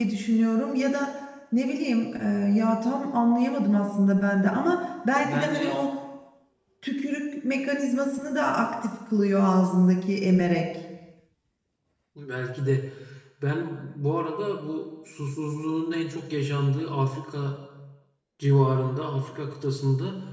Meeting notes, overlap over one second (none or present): none